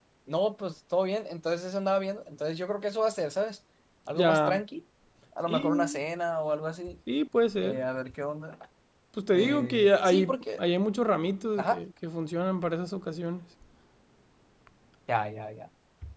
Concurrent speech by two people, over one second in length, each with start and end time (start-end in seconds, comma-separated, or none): 9.3-10.6